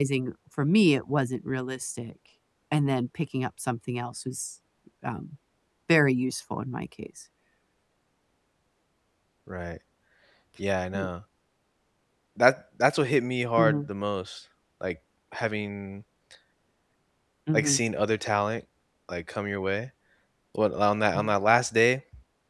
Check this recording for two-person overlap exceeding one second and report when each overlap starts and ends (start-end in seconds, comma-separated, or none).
none